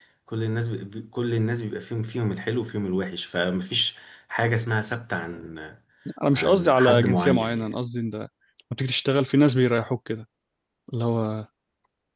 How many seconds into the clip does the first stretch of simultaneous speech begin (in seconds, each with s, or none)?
6.3 s